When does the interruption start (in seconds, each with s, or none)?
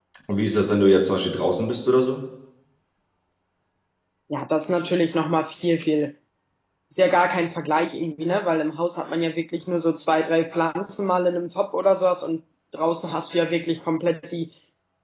none